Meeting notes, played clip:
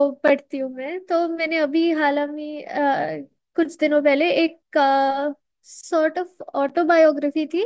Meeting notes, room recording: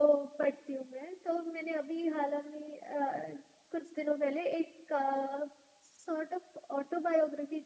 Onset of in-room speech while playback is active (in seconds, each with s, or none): none